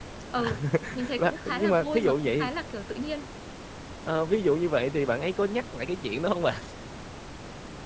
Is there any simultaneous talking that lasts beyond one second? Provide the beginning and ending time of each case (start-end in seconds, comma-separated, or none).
1.2-2.5